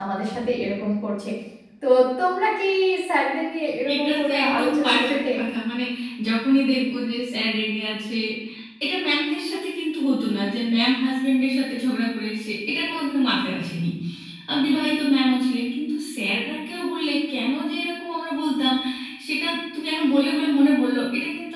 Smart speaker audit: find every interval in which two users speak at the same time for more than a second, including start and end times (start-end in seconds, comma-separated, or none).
3.9-5.3